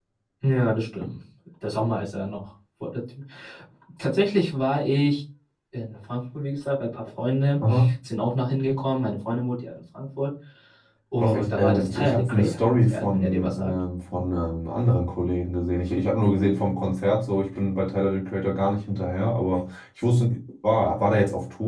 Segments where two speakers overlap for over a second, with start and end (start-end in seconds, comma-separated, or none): 11.2-13.7